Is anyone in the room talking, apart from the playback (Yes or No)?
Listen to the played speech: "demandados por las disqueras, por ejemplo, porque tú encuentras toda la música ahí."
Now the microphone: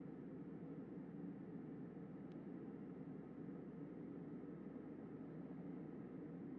No